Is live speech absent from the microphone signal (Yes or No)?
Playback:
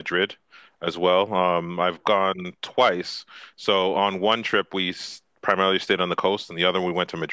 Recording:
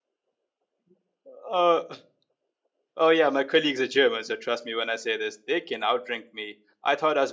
No